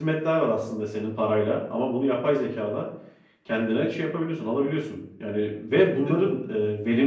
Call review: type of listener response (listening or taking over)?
listening